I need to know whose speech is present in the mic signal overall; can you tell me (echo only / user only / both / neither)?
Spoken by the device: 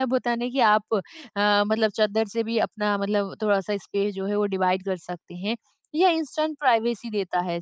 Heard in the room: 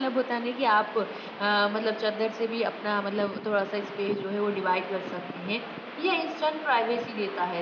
echo only